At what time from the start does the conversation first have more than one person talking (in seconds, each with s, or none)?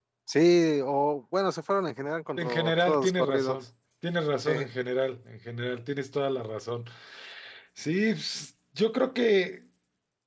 2.4 s